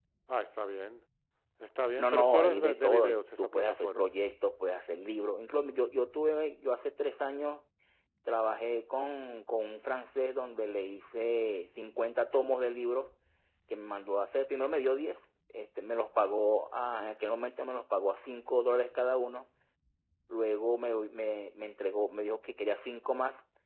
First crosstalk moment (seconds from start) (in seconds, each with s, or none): 2.0 s